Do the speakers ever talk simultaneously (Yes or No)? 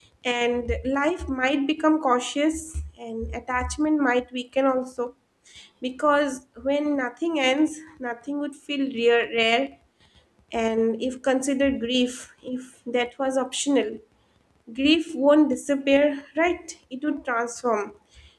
No